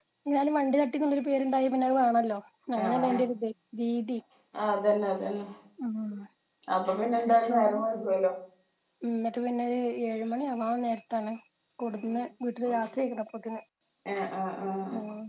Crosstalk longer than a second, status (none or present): none